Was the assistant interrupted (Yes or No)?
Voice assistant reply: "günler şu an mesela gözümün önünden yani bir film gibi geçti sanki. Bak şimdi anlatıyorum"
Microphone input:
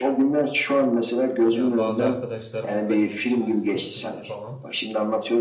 Yes